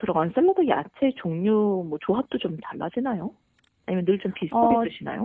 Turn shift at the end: Yes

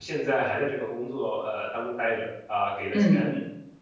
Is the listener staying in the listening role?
Yes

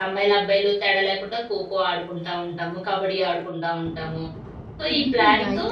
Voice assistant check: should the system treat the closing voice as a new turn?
Yes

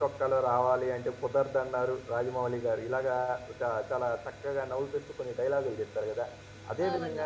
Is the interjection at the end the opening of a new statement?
No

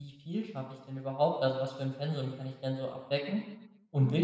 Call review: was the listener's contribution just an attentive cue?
Yes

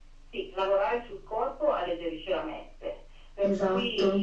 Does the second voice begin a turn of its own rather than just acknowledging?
No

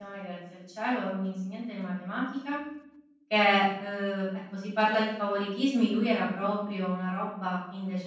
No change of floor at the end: Yes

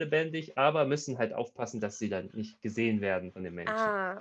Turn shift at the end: Yes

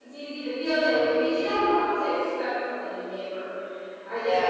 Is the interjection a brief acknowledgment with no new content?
Yes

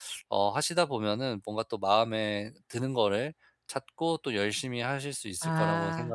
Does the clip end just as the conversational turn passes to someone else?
Yes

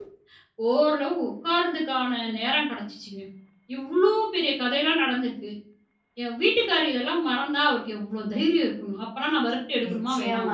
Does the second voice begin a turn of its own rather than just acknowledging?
Yes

